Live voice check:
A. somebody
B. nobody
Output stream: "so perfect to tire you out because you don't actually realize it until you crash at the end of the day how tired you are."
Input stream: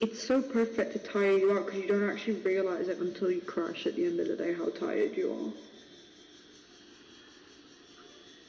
B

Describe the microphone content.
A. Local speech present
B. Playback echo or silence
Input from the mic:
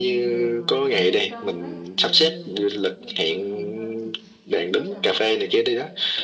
A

